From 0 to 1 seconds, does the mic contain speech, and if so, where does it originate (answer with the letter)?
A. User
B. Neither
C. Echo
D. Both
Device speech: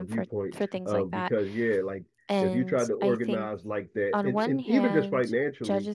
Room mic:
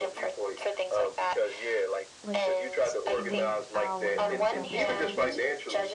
C